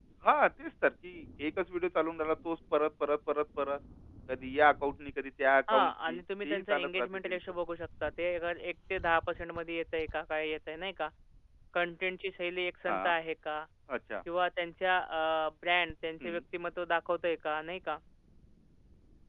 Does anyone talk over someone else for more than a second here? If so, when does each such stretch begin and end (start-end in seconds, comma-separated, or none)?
5.7-7.4